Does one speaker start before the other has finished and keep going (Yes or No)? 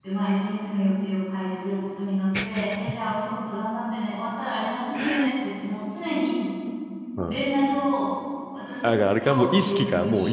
Yes